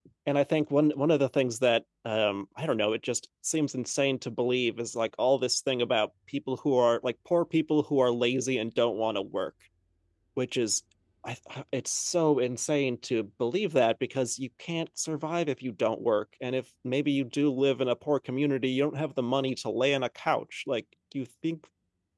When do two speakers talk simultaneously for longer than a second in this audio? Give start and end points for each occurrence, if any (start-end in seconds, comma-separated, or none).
none